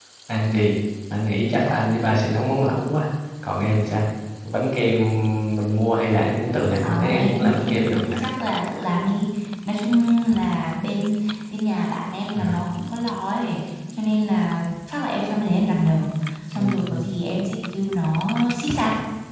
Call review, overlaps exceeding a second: present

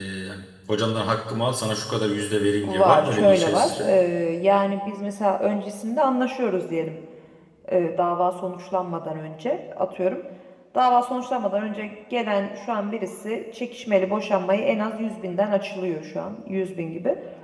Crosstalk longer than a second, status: present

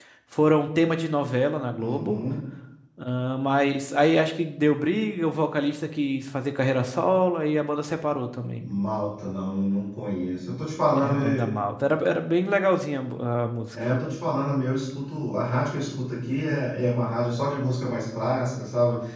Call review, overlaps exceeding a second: none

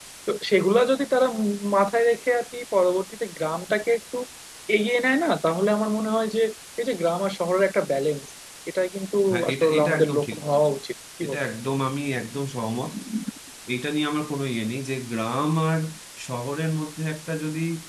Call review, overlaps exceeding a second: present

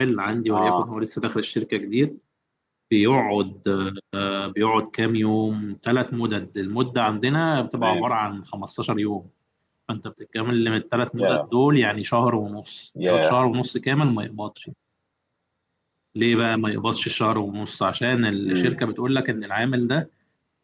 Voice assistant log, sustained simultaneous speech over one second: none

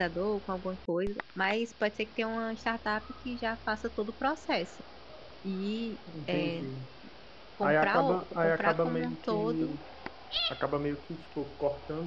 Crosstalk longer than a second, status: present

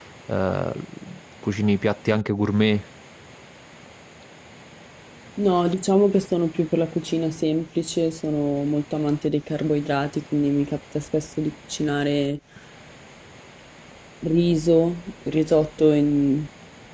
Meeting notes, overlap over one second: none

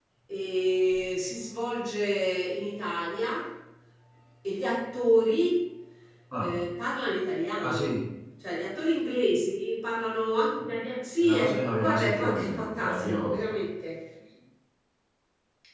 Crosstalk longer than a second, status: present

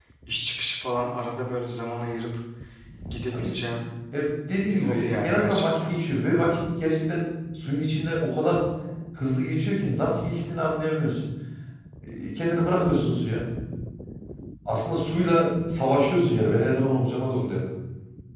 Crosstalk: present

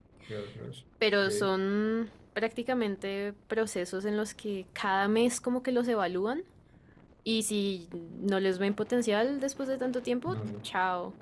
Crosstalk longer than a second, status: none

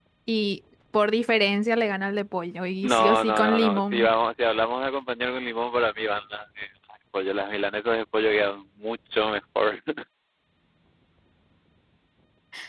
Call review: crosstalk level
present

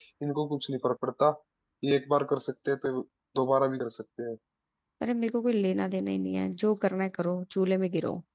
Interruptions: none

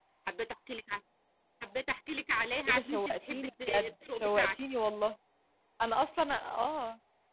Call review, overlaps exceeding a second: present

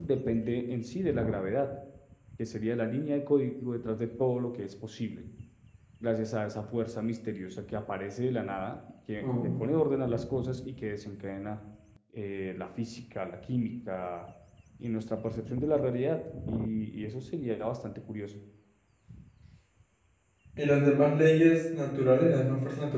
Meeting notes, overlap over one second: none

